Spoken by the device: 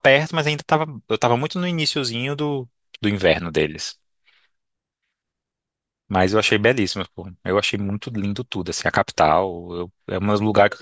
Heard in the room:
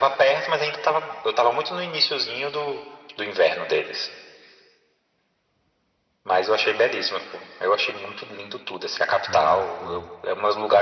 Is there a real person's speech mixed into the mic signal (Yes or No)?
Yes